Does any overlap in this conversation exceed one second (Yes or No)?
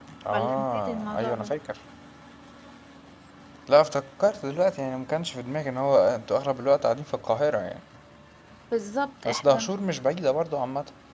Yes